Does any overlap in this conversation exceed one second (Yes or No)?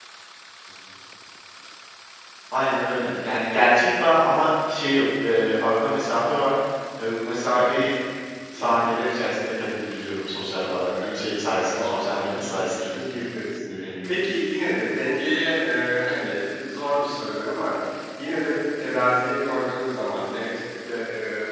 Yes